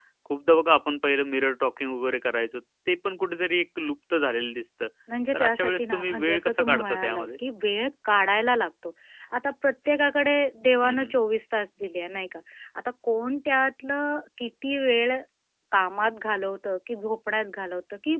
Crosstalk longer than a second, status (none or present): present